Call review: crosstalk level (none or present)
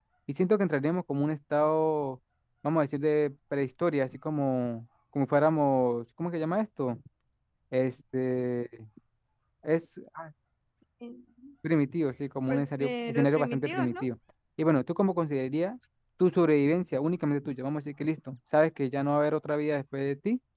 present